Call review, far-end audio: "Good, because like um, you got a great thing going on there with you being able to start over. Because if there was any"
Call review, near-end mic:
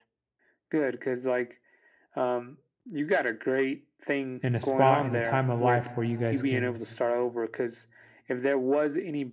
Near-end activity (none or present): present